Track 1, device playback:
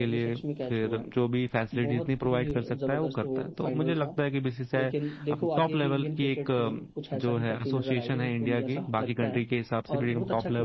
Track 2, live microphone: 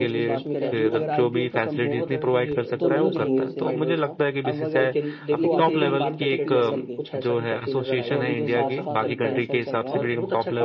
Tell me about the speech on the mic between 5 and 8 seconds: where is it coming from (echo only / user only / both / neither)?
both